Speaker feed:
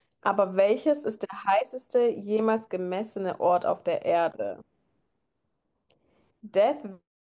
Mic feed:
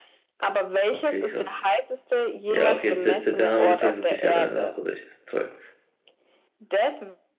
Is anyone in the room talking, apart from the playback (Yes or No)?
Yes